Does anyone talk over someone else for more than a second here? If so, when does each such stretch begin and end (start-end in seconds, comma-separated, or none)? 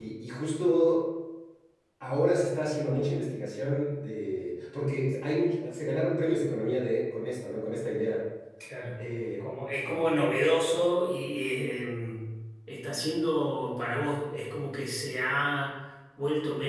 none